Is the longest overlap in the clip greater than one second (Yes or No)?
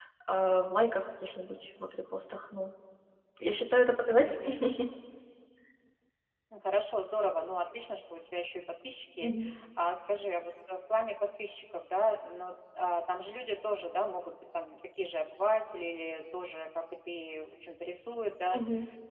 No